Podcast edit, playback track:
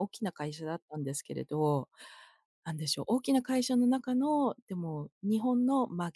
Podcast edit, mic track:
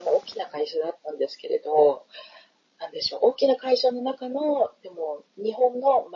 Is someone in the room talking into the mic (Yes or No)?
No